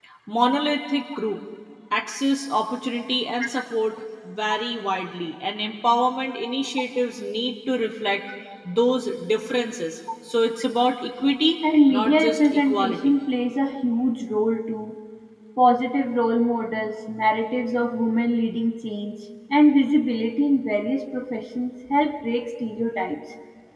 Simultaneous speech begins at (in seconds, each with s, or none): 11.9 s